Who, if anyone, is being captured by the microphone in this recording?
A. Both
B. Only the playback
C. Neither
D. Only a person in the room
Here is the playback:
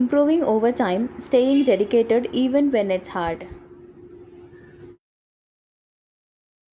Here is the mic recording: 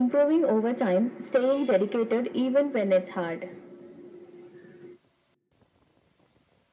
B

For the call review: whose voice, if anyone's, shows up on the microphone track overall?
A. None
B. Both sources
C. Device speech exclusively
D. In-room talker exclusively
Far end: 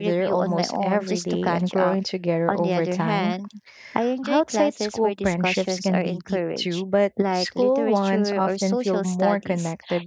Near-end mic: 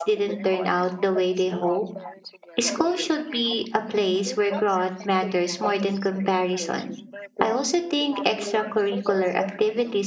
B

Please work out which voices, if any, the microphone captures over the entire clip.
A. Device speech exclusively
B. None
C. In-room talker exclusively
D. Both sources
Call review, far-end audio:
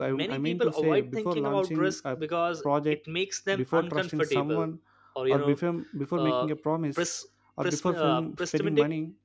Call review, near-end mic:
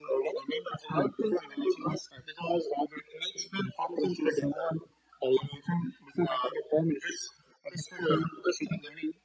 A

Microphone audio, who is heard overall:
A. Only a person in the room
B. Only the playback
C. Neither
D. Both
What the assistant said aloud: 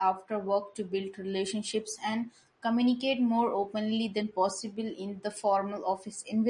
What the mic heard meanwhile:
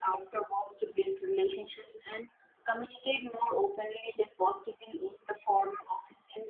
B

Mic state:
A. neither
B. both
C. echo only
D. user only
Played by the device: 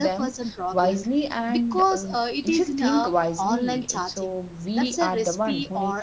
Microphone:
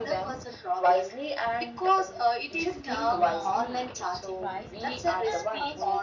B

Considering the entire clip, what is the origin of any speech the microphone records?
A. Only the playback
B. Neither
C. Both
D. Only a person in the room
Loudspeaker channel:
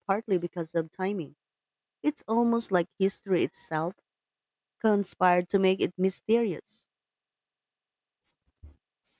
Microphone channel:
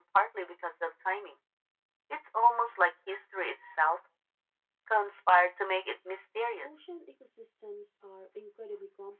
C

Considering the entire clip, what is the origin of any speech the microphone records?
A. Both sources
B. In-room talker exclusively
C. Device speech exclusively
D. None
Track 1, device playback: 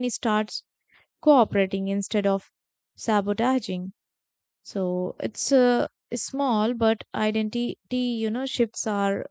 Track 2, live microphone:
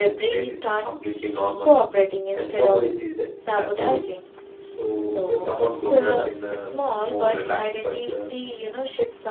A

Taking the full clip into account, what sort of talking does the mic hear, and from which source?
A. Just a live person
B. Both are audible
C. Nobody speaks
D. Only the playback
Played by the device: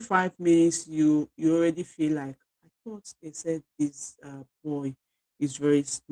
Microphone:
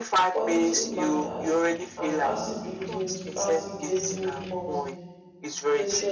B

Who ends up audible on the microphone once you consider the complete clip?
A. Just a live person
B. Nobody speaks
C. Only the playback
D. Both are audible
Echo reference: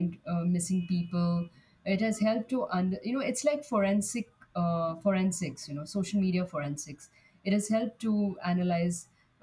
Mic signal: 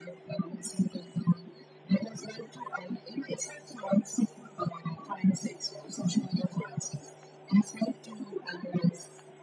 C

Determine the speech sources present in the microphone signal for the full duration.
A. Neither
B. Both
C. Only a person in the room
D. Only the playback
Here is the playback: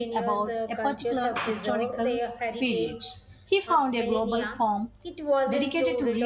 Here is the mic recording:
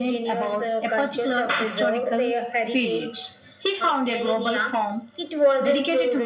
D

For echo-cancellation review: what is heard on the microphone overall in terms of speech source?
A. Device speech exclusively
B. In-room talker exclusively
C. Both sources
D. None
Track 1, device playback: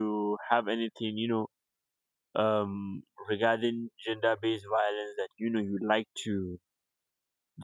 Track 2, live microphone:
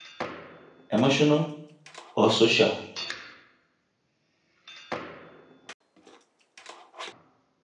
B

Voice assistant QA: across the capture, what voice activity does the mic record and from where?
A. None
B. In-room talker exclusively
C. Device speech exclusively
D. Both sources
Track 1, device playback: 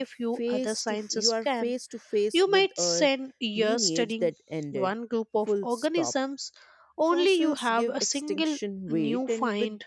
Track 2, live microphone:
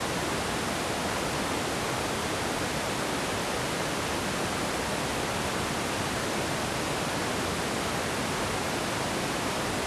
A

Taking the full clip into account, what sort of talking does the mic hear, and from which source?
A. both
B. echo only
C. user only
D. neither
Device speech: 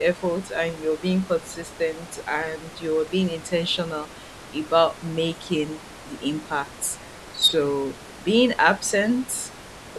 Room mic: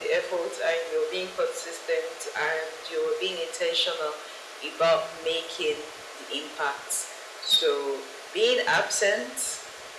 B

